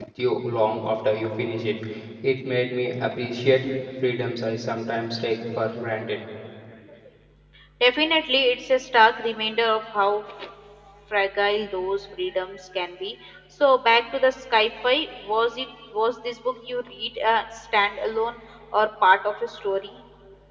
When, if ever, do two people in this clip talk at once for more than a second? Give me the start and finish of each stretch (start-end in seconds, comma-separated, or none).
none